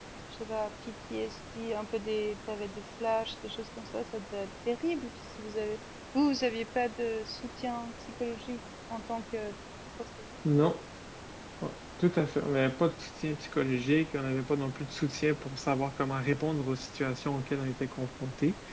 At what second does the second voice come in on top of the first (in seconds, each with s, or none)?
none